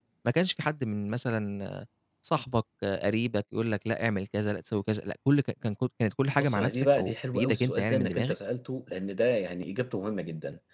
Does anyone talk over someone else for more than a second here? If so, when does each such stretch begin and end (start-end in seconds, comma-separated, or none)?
6.4-8.3